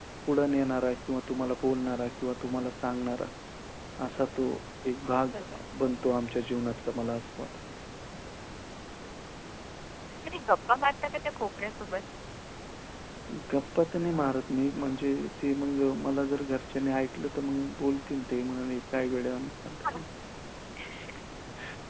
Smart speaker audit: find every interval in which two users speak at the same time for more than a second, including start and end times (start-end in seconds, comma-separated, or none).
none